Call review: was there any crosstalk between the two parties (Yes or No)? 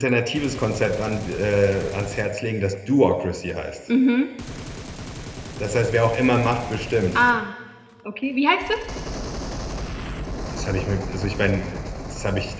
No